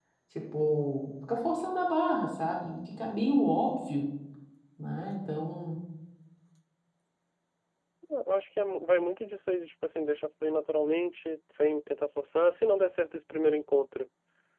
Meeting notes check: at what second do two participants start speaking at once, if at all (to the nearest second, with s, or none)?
none